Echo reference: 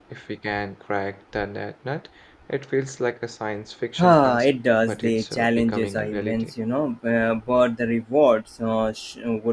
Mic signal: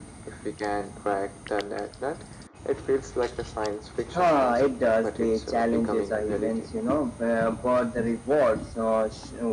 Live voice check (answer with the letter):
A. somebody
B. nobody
B